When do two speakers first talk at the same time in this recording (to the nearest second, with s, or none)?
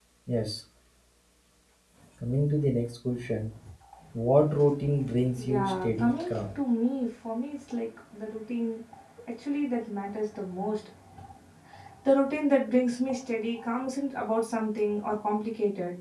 5 s